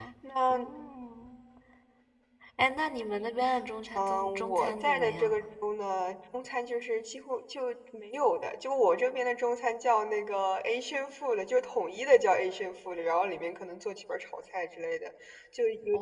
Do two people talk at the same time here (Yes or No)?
Yes